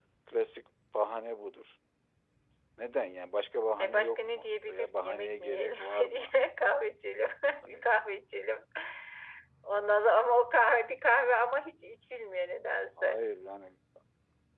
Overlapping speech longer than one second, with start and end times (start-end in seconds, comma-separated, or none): 3.8-6.3